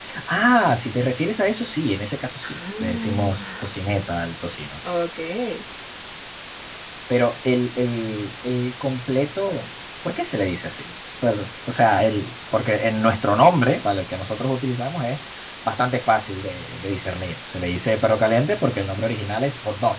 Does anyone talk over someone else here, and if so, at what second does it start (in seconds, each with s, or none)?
2.4 s